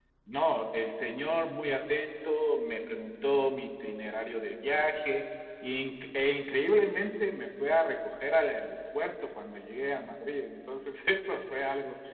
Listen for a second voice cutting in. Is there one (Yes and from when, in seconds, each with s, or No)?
No